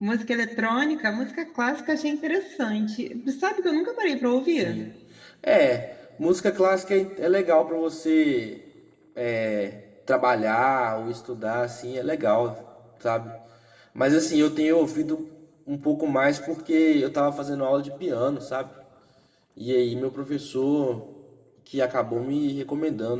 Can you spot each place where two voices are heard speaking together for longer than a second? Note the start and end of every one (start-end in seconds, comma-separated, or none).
none